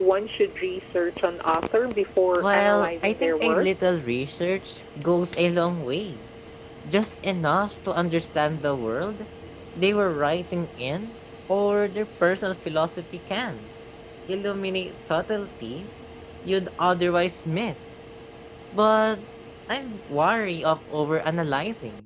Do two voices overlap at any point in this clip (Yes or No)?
Yes